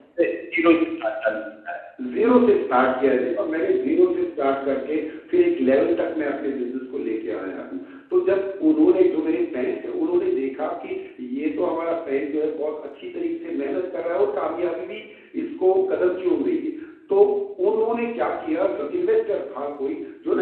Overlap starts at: none

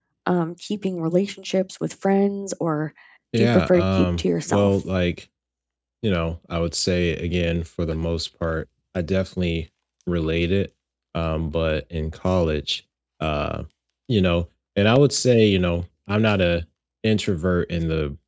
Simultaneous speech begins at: 3.4 s

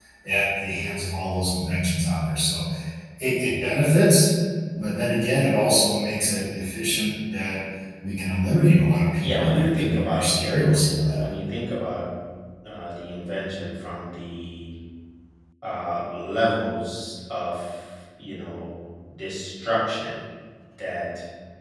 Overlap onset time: 9.2 s

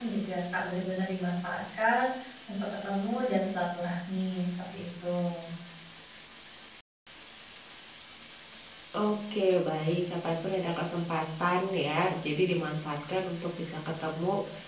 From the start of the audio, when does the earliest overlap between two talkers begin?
none

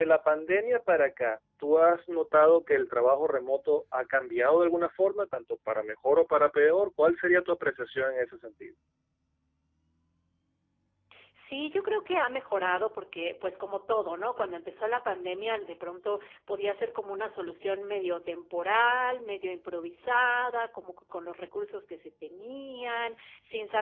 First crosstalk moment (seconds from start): none

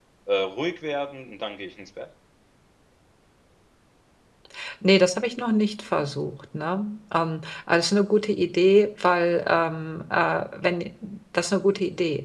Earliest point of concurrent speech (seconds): none

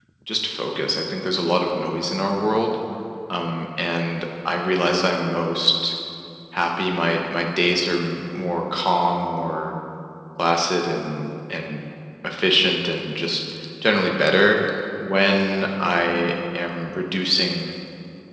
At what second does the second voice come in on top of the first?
none

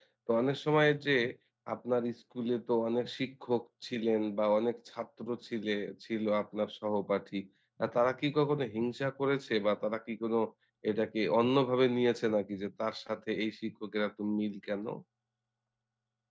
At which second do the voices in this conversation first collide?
none

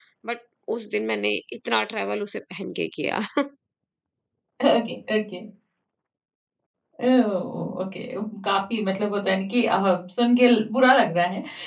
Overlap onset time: none

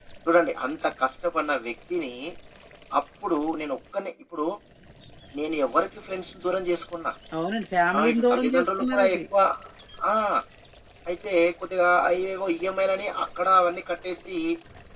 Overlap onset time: 8.0 s

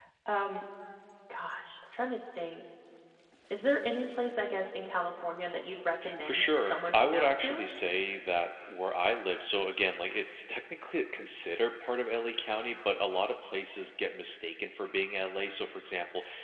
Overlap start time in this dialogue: 6.0 s

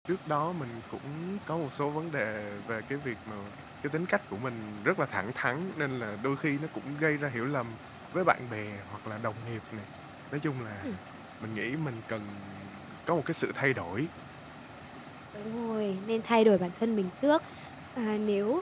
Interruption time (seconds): none

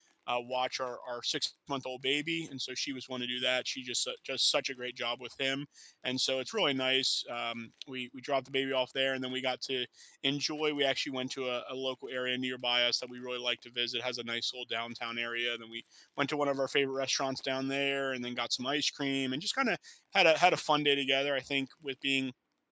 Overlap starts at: none

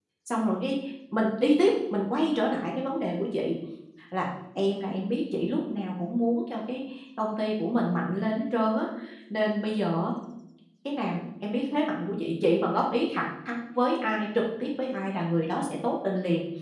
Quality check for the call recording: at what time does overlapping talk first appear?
none

